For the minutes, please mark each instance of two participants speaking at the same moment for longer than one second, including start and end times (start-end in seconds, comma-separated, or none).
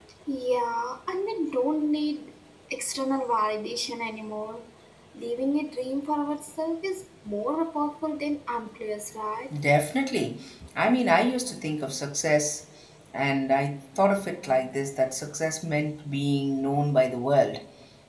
none